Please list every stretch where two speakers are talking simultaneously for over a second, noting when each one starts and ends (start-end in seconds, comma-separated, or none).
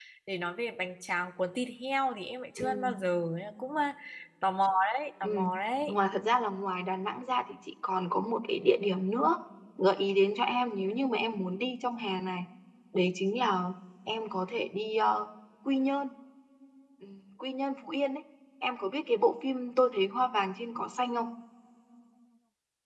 none